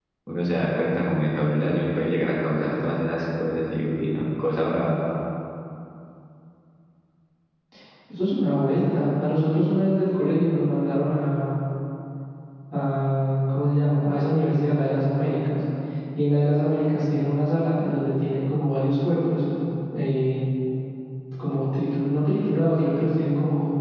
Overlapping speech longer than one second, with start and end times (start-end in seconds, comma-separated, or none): none